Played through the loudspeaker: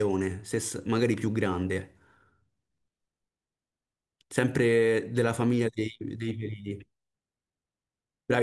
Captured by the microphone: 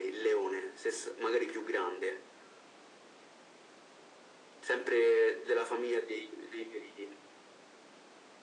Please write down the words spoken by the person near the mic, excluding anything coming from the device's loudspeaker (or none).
none